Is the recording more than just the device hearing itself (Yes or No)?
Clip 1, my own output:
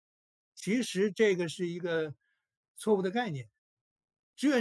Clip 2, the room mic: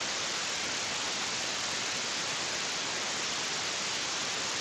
No